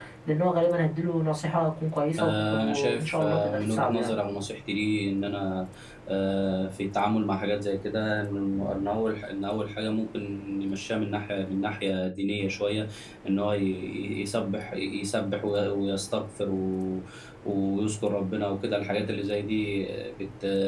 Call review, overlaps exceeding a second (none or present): present